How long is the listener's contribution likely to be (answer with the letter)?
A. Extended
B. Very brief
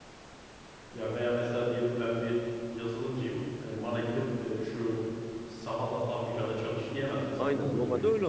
A